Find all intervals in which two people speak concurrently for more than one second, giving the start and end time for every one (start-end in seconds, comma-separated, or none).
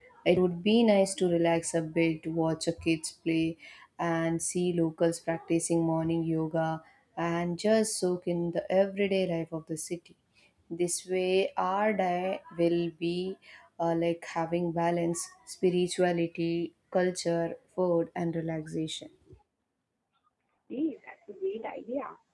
none